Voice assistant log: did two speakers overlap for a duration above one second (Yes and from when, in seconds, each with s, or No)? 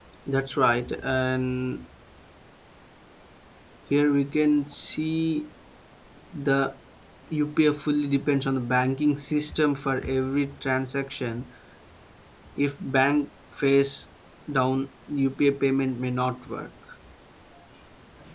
No